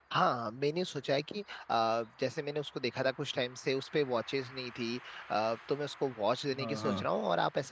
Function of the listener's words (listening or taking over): listening